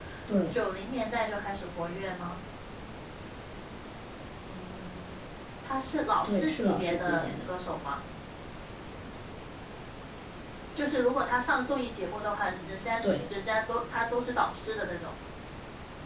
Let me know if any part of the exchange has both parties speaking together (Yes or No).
Yes